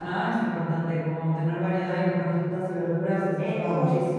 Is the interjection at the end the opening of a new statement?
Yes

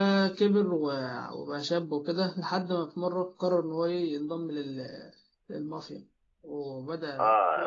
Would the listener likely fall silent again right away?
No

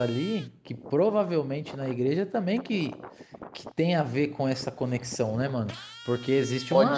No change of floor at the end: Yes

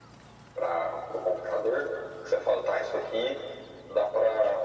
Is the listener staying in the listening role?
Yes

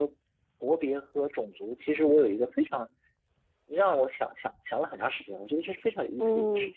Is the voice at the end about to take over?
Yes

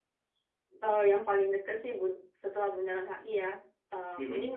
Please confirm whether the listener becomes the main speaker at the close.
No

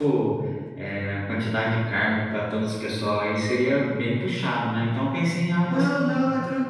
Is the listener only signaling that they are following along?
No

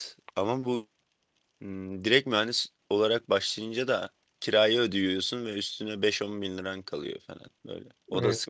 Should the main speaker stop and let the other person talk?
Yes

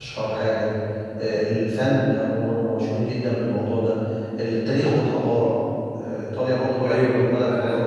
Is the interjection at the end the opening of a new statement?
Yes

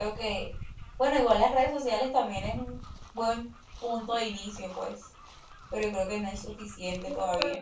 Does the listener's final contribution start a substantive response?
Yes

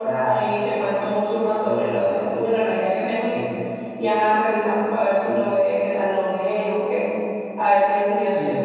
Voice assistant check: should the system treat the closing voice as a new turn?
Yes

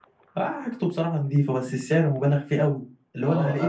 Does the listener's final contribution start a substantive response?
Yes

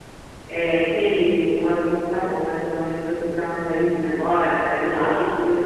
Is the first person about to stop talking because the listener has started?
No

